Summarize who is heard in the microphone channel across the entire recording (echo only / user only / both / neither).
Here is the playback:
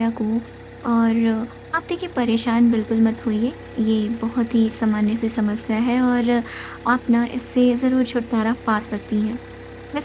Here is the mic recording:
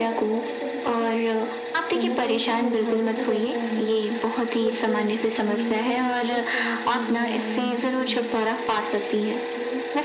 both